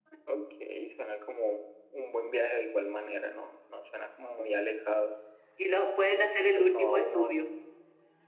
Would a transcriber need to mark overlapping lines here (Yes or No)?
Yes